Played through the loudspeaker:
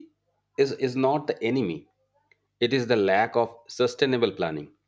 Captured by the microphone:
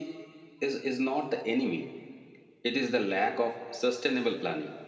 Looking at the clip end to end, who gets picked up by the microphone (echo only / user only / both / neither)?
echo only